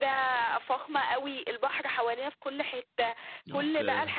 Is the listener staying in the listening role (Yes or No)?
Yes